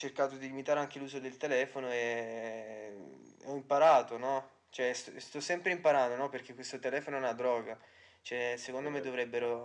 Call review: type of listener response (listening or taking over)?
listening